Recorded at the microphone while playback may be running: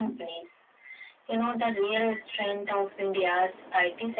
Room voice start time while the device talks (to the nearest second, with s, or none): none